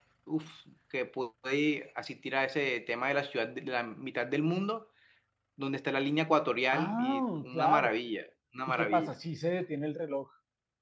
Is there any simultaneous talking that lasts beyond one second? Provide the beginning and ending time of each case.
6.7-7.9

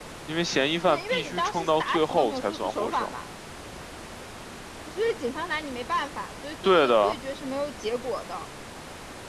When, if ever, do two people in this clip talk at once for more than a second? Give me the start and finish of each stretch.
0.9-3.1

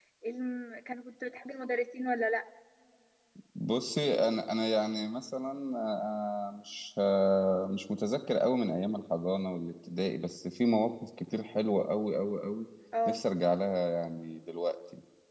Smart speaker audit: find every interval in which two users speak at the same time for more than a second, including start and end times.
none

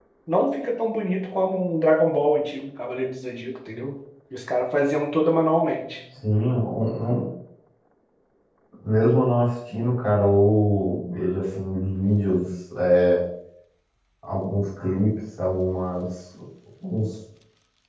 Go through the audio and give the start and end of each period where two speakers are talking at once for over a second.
none

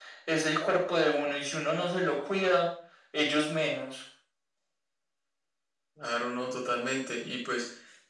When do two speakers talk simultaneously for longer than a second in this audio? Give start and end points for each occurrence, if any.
none

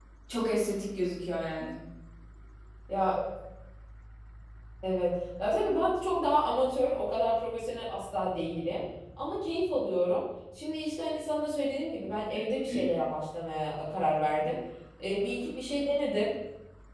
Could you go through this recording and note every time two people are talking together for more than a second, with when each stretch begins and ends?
none

